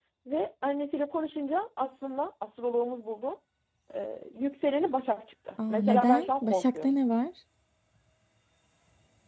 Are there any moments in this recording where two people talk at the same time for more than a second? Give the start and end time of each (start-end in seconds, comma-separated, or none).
5.7-7.0